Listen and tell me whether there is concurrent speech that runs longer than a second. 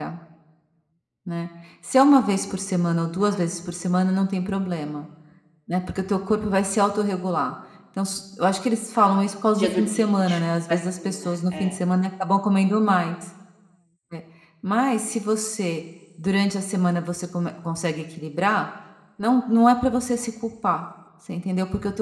Yes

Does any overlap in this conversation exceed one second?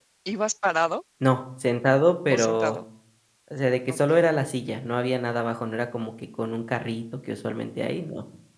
No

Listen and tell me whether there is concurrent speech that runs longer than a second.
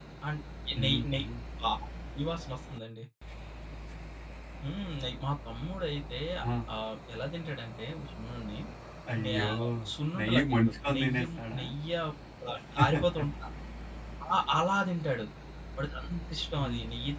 Yes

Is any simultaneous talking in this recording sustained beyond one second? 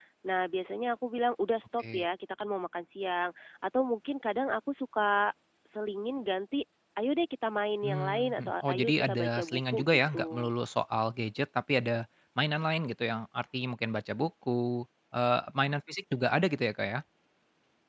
Yes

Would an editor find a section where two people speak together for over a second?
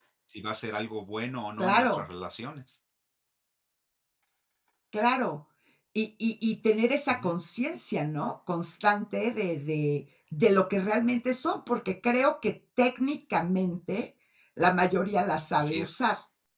No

